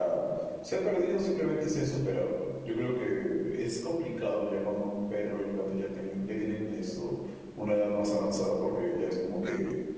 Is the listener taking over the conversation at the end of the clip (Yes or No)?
No